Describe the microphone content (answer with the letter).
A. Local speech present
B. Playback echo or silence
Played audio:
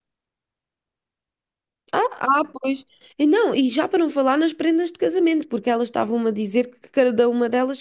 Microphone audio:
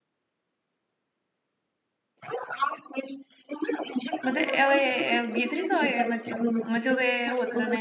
A